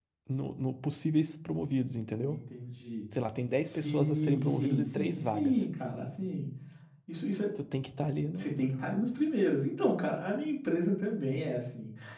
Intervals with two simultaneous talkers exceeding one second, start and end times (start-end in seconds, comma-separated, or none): 3.7-5.7